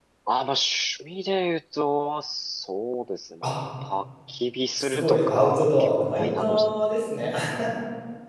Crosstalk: present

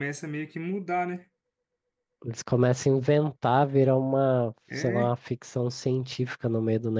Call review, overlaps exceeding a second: none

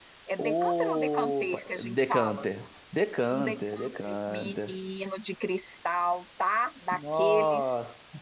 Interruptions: present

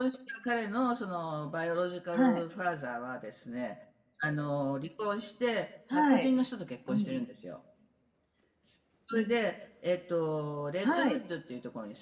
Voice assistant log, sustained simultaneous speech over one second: none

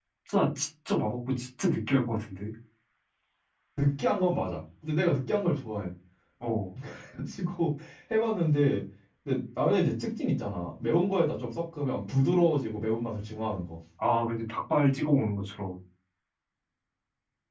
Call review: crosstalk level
none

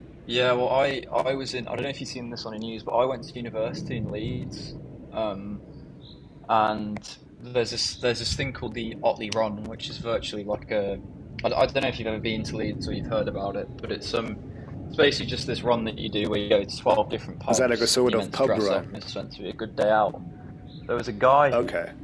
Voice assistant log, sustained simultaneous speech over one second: present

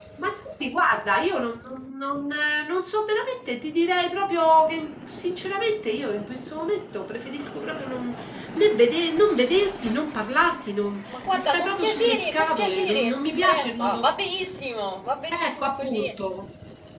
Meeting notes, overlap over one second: present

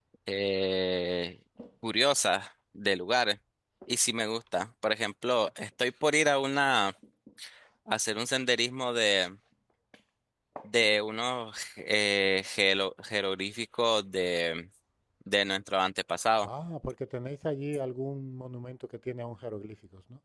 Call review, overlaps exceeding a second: none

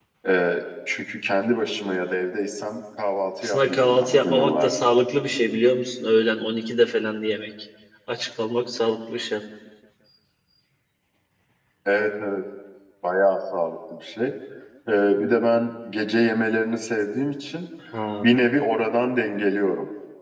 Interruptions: present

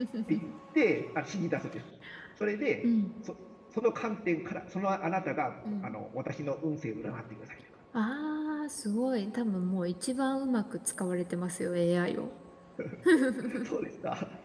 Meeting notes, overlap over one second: none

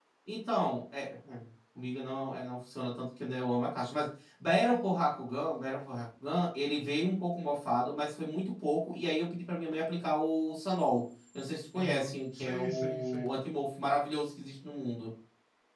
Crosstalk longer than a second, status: present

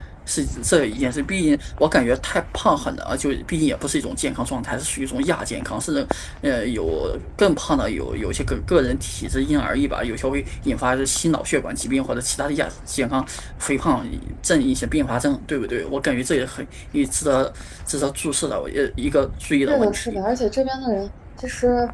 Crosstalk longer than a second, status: none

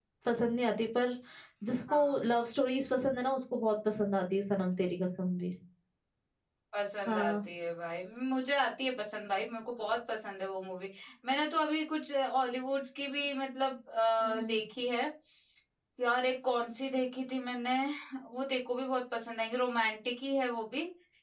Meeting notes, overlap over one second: none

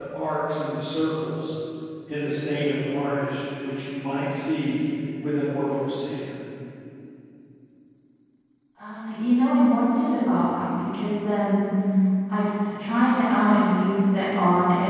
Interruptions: none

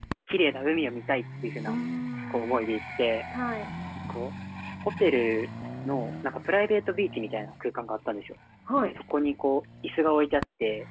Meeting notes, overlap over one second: none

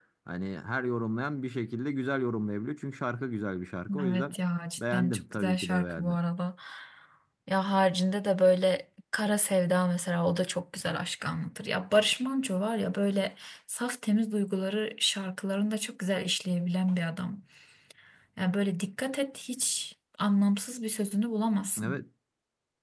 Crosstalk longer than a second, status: present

